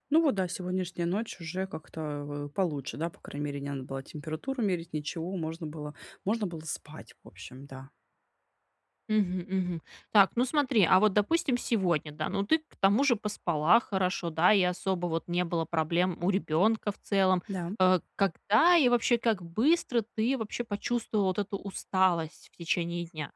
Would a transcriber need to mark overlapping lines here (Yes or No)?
No